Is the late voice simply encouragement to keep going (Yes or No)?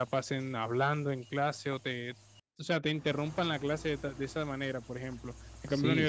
Yes